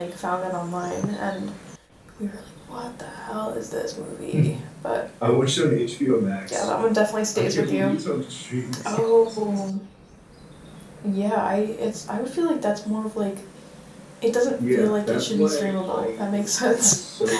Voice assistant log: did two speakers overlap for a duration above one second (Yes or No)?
Yes